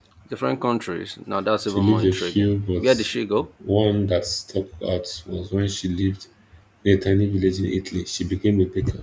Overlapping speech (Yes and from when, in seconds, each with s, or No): Yes, from 1.7 s